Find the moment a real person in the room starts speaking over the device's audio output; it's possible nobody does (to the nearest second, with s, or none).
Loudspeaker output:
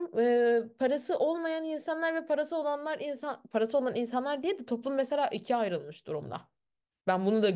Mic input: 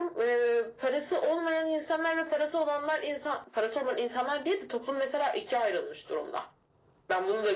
none